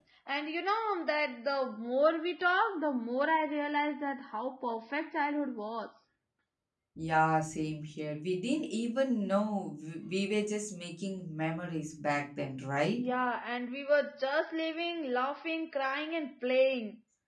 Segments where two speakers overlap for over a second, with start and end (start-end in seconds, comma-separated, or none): none